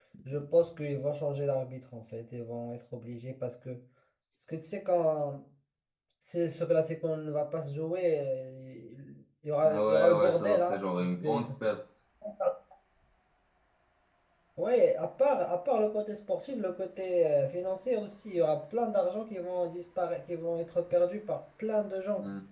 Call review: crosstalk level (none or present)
present